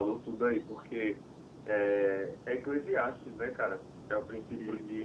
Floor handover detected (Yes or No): No